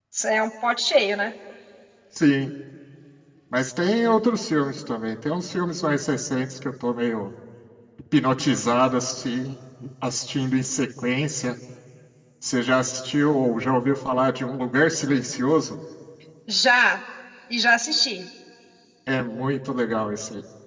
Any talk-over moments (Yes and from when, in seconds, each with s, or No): No